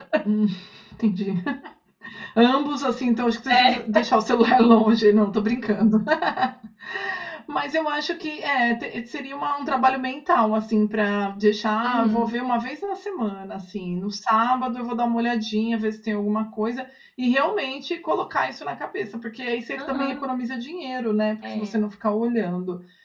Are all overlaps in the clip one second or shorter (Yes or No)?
Yes